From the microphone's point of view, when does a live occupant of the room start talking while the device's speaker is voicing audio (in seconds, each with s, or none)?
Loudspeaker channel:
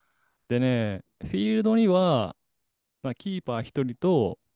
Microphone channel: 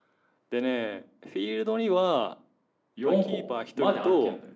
3.0 s